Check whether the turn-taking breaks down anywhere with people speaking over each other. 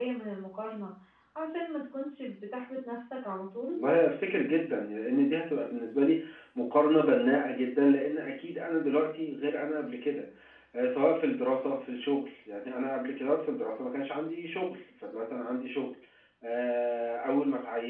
No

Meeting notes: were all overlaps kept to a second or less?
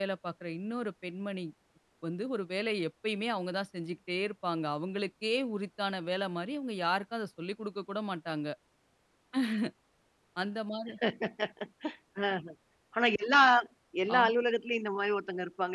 Yes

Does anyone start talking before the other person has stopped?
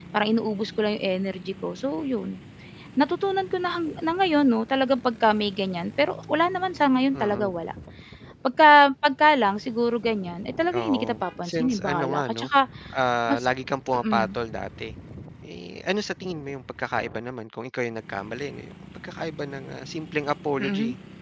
Yes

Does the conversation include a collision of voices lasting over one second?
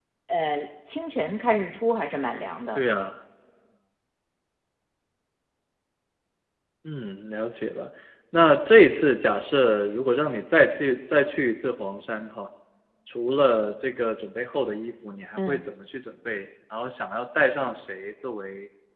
No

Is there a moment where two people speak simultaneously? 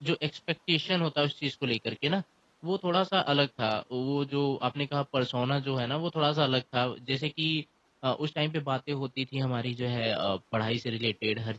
No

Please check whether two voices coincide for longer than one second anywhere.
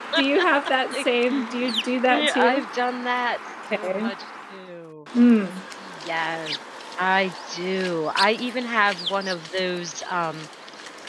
No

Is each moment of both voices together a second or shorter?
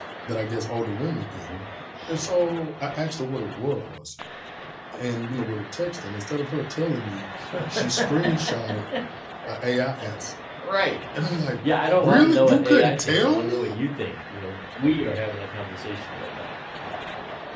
No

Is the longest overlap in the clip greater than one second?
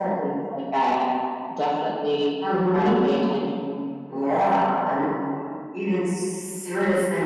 No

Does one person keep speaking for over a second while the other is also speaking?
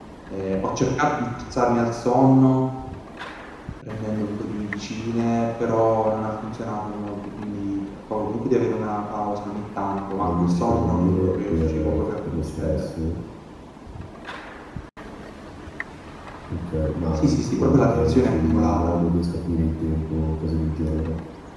Yes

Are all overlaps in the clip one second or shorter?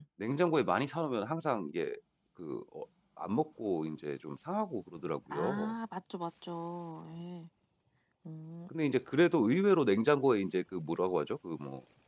Yes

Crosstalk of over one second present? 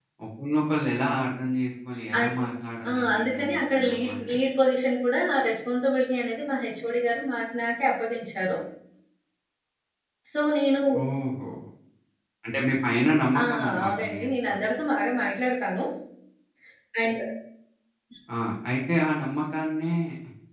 Yes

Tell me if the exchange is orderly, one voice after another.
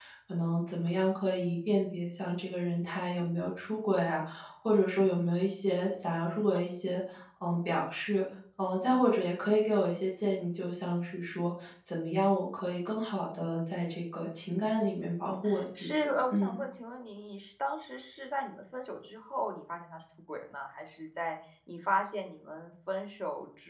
No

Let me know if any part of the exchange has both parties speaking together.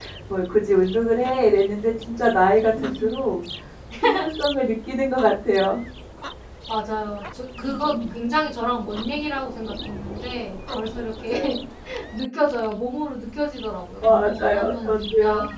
Yes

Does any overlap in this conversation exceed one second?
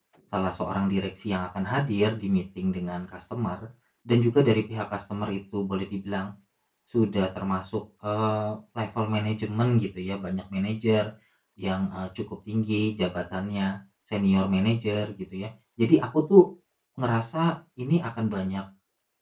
No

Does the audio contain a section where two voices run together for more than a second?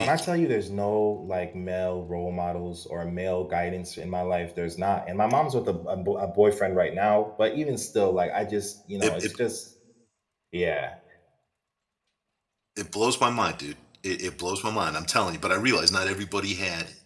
No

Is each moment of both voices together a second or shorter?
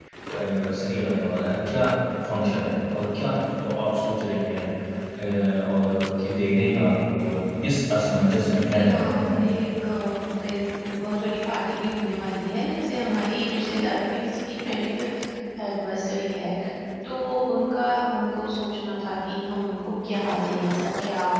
Yes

